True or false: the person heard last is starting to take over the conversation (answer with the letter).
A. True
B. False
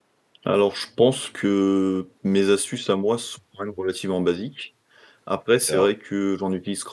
B